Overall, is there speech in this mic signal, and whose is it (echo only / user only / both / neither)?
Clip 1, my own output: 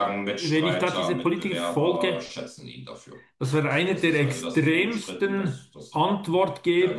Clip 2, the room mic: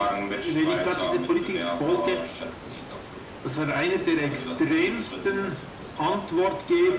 echo only